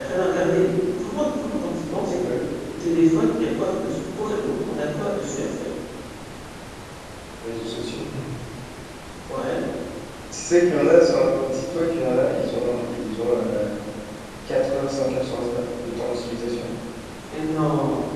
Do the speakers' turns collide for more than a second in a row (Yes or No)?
No